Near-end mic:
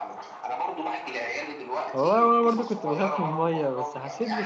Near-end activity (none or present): present